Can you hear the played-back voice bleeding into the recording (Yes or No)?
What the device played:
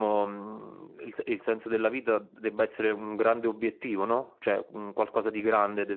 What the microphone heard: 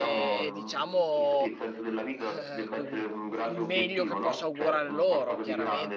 Yes